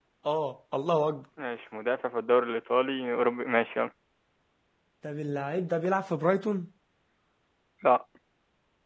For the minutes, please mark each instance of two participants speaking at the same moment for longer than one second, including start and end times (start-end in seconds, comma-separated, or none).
none